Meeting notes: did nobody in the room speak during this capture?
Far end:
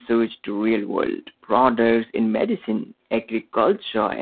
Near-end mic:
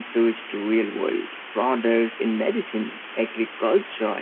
Yes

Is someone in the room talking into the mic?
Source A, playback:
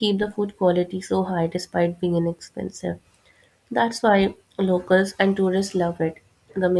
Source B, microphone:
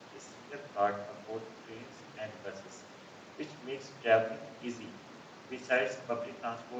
Yes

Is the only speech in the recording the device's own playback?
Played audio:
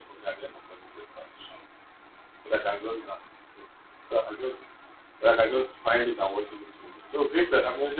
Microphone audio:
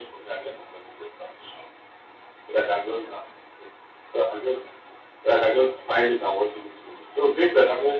Yes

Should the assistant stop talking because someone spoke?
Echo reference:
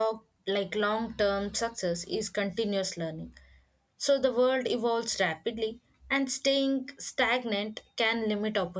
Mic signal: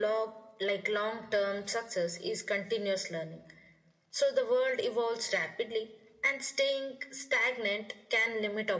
No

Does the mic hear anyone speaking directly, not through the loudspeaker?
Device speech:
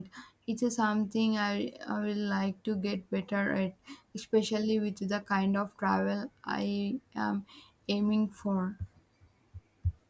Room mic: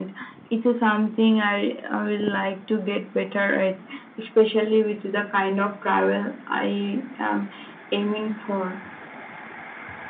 No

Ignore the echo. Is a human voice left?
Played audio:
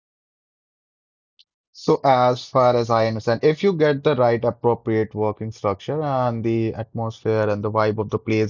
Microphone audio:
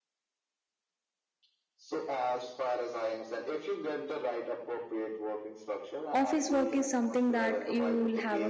Yes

